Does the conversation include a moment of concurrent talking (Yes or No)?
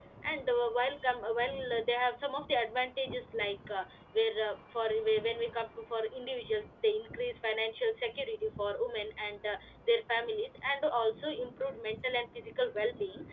No